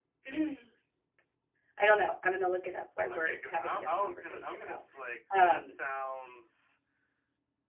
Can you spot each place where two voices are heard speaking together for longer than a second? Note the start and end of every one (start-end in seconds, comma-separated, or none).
3.1-4.8